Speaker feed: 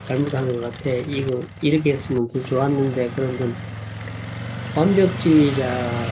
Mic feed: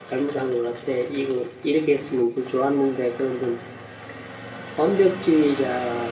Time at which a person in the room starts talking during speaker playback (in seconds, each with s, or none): none